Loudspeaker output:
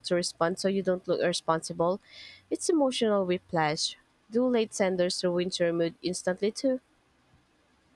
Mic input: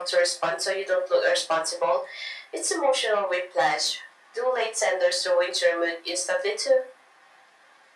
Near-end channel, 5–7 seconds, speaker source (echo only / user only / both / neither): echo only